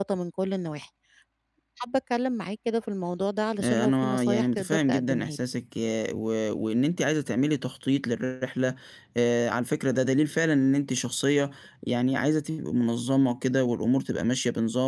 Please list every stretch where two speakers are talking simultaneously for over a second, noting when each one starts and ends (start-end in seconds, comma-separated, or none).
3.6-5.4